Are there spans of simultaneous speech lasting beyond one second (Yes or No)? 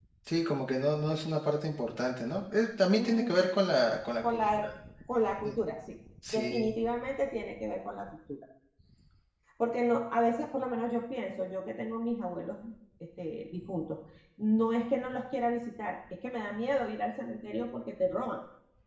No